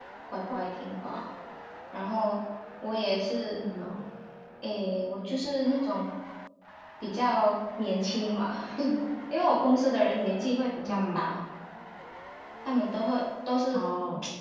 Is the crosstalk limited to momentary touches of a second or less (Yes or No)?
Yes